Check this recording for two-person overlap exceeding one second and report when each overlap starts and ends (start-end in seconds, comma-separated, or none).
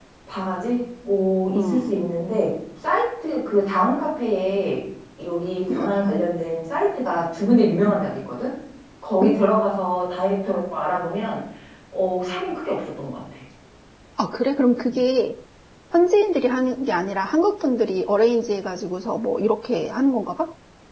none